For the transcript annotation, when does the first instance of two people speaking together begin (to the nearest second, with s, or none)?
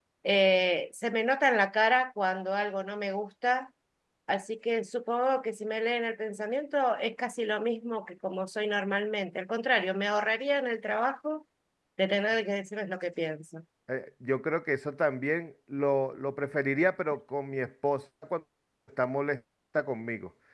none